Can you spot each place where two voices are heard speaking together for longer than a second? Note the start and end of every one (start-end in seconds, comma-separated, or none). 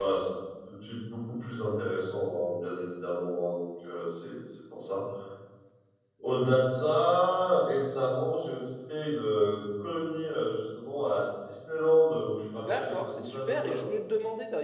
12.6-13.9